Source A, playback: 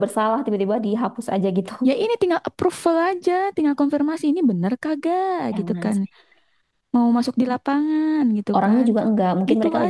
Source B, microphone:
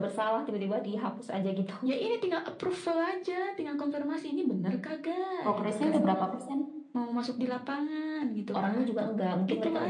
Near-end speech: present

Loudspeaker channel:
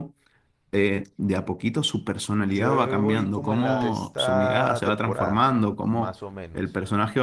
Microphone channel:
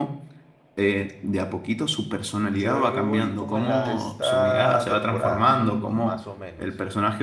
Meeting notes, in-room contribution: none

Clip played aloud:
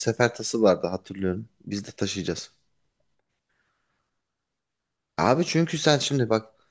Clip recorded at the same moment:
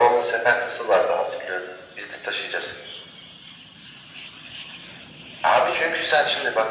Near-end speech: none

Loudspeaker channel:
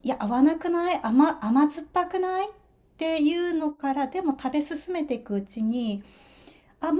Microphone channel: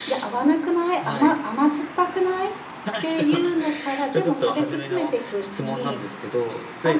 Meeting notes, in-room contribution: present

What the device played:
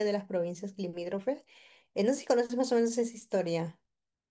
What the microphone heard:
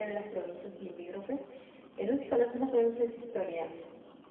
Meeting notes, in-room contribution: none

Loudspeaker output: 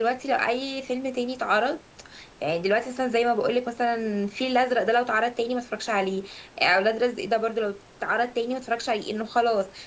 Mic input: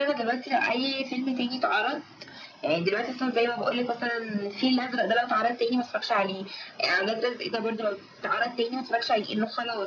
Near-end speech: none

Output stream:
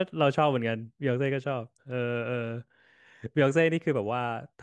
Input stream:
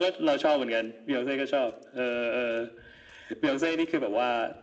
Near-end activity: none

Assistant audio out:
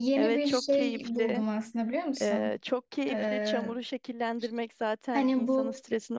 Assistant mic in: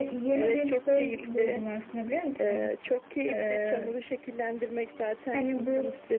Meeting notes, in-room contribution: none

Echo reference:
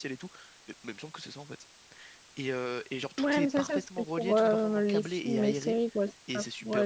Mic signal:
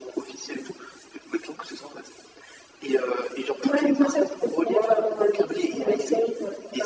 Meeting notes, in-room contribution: none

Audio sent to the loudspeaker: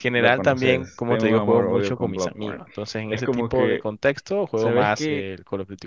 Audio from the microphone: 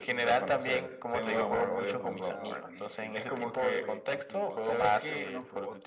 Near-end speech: present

